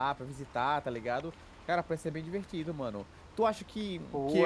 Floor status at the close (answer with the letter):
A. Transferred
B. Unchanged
B